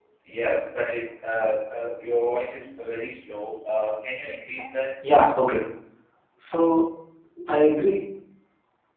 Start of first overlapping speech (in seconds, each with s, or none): none